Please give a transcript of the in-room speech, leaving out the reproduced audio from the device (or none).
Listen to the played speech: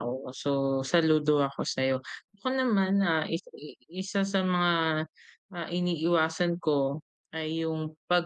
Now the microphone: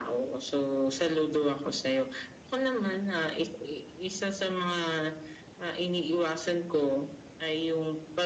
none